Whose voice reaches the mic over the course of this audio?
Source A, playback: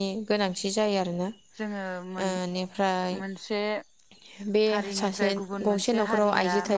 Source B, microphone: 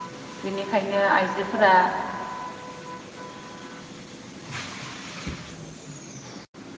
user only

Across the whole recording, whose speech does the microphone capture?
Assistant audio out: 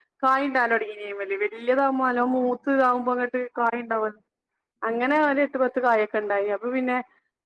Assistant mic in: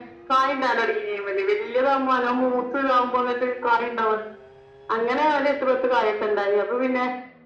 echo only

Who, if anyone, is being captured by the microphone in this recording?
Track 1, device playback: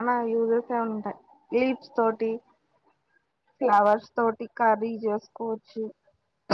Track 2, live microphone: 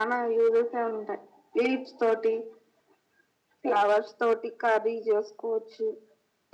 echo only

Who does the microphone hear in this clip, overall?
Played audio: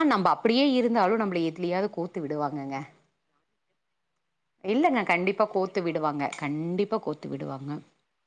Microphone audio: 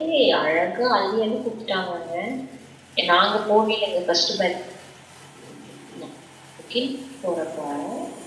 user only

